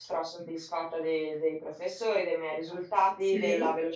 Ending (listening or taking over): listening